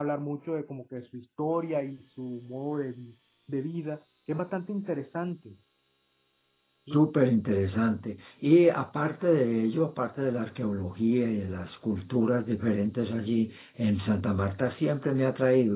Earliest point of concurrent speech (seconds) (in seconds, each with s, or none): none